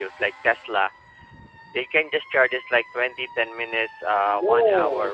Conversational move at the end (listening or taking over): taking over